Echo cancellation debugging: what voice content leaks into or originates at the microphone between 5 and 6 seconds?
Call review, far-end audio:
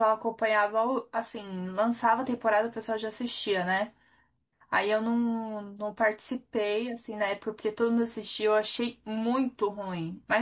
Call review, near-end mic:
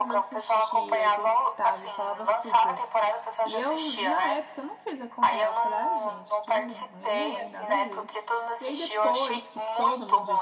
both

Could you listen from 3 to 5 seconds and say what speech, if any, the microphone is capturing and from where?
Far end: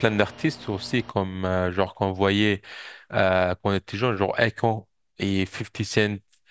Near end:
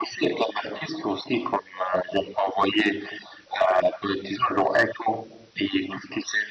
echo only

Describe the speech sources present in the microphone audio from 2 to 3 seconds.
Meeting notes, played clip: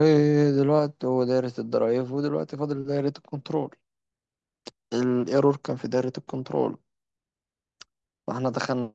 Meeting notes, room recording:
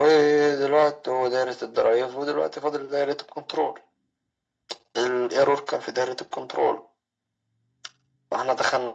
echo only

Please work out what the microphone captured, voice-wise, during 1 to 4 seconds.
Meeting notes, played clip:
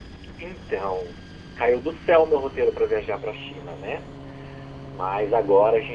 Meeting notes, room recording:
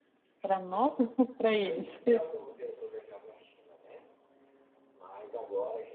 both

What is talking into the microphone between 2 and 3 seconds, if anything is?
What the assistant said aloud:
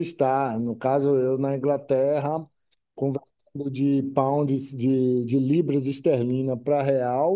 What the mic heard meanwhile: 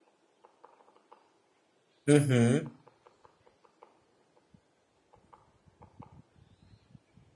user only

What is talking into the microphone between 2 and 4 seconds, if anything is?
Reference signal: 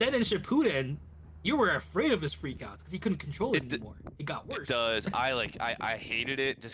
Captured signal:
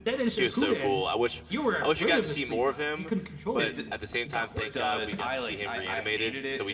both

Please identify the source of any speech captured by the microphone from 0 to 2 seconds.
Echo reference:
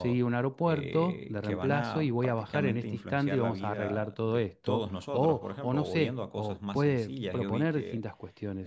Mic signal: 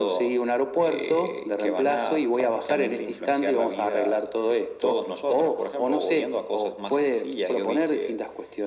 echo only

